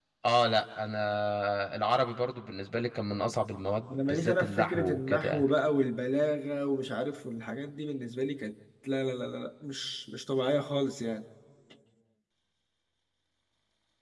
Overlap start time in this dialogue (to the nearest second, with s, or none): 4 s